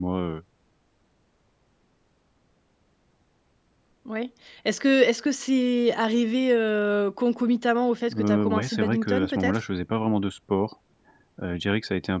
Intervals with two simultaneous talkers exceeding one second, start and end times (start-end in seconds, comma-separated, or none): 8.2-9.6